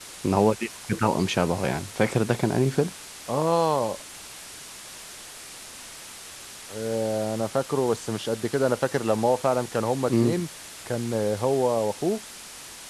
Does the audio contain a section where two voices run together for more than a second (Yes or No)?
No